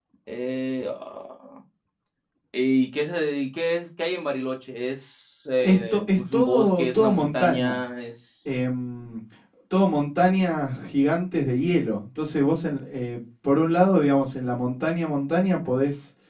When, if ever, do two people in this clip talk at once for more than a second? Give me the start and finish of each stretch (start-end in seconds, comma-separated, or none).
5.6-7.8